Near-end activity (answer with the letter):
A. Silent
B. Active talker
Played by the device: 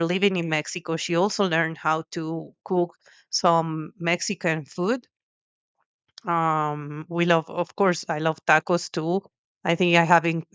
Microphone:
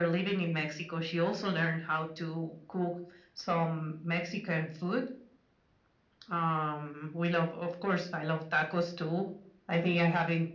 A